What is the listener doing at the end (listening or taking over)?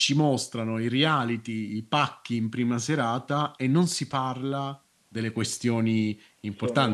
listening